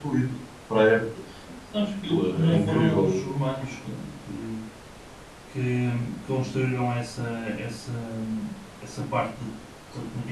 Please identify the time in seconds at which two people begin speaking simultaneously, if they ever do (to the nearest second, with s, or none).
2 s